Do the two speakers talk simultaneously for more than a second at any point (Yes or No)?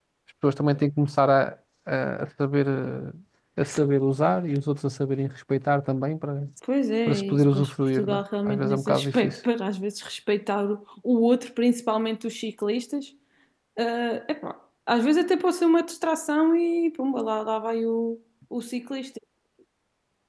Yes